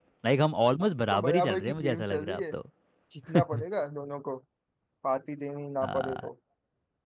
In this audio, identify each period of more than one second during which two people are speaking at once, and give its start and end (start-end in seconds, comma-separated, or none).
0.8-2.4